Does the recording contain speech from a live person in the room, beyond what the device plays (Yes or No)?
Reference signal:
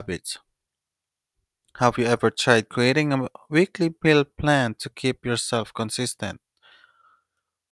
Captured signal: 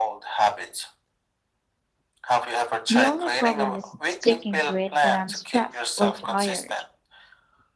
Yes